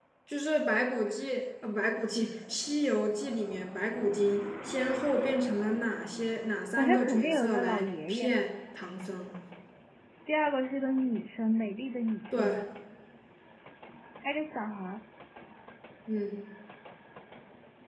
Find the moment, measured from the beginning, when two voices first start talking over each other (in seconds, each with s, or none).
6.8 s